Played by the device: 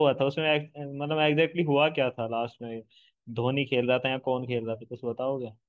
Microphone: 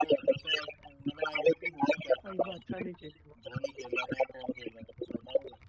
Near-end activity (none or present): present